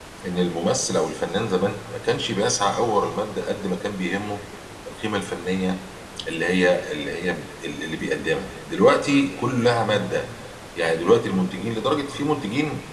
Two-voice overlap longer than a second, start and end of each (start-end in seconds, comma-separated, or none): none